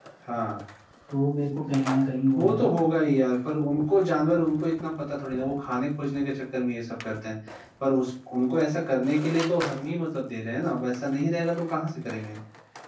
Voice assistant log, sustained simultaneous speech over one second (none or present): none